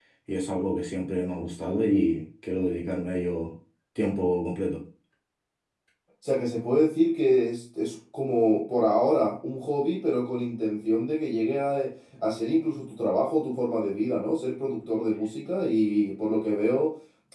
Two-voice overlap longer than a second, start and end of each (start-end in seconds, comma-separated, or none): none